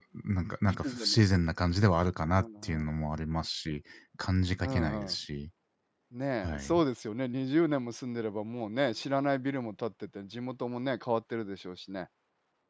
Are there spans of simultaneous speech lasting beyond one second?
No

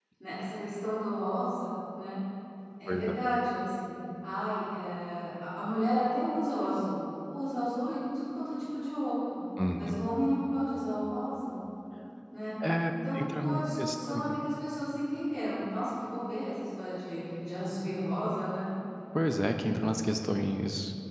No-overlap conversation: No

